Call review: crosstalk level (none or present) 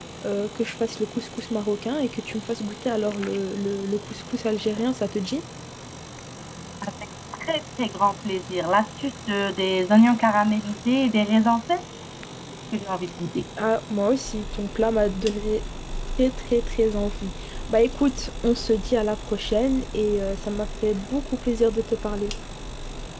none